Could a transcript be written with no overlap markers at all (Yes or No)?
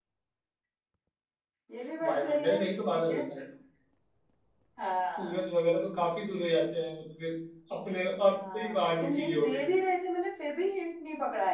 No